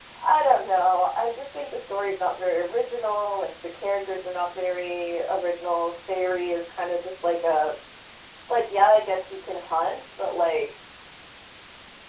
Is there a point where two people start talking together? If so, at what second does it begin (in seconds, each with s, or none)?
none